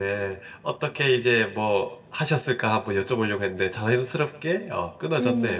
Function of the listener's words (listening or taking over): taking over